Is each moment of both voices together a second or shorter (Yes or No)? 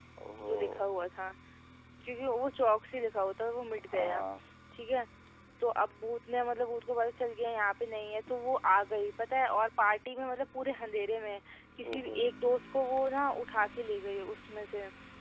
Yes